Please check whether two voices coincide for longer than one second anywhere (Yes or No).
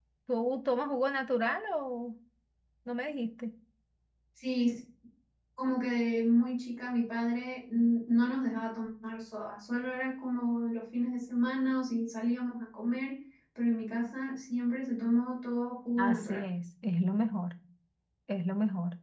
No